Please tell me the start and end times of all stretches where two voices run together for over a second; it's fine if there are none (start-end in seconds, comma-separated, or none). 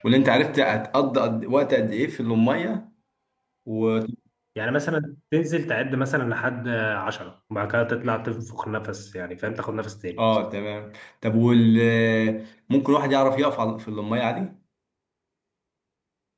none